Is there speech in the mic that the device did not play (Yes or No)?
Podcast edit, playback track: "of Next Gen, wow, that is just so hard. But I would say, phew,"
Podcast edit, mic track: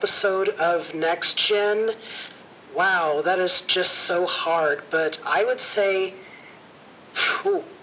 No